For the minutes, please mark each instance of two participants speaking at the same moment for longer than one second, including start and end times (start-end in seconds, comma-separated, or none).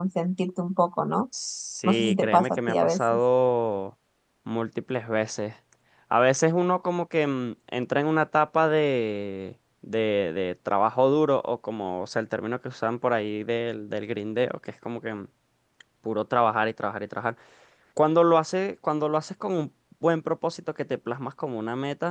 1.9-3.2